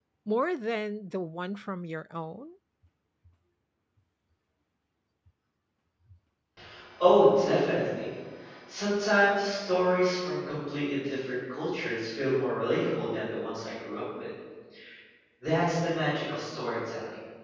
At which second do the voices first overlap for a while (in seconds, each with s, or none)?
none